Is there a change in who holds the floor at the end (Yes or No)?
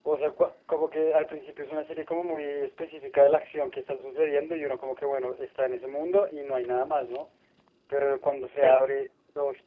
No